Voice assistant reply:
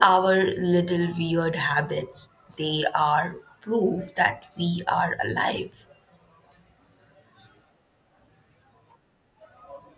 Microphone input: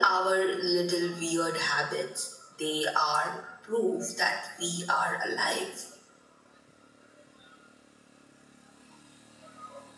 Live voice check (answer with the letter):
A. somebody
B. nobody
B